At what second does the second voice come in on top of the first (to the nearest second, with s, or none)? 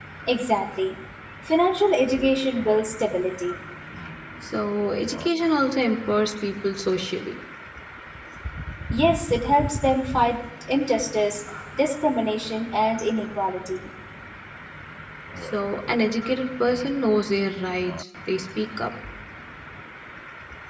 none